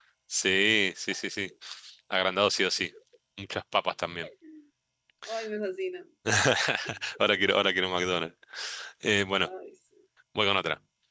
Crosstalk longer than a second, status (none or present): none